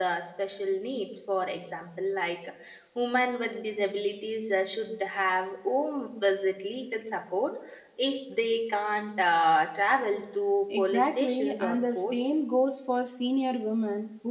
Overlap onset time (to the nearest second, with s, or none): 11 s